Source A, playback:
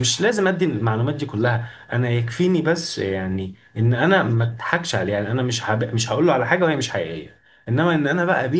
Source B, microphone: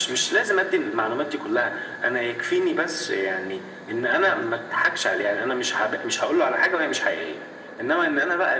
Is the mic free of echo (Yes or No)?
No